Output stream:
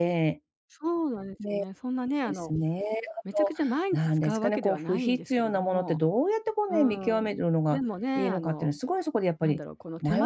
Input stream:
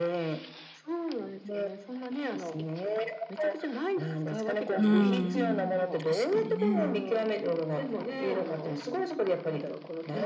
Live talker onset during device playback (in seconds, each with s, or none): 4.8 s